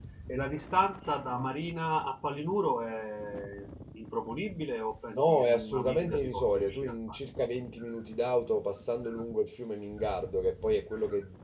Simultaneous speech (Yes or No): Yes